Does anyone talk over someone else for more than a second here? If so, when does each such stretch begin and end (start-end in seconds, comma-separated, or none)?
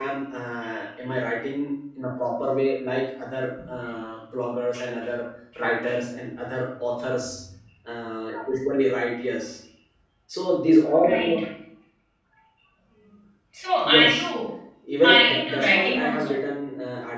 15.0-16.3